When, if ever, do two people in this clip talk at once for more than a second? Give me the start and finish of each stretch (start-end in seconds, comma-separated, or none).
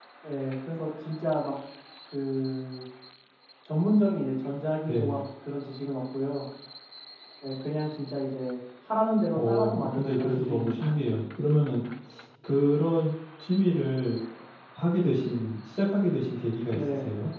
9.3-11.0